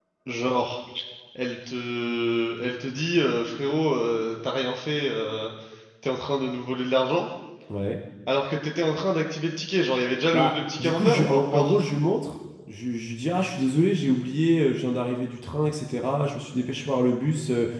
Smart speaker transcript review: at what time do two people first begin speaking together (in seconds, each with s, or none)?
10.3 s